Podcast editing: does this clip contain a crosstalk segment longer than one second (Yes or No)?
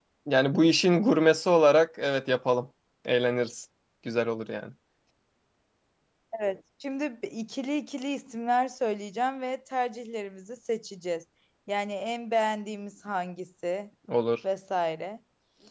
No